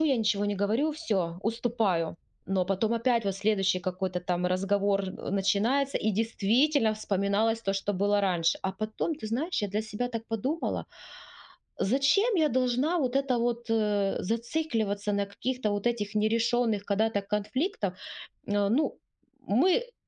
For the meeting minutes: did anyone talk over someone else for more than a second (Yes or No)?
No